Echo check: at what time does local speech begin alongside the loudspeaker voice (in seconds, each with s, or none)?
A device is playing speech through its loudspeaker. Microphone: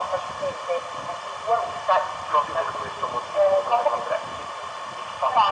none